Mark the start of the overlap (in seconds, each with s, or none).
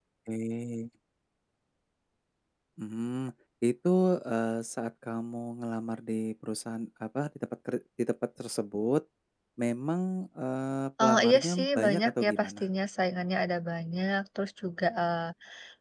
11.0 s